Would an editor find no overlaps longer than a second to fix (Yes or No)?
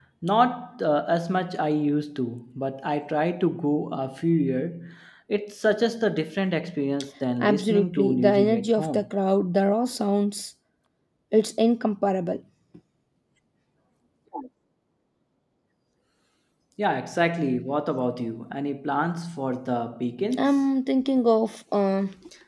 No